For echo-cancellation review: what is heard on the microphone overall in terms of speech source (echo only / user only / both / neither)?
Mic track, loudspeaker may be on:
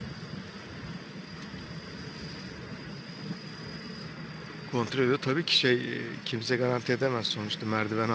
user only